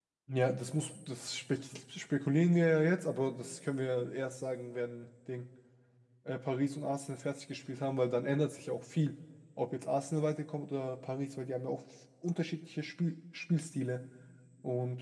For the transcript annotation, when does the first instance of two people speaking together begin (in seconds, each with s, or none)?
none